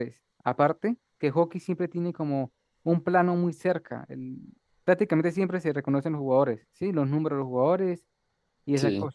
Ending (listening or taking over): listening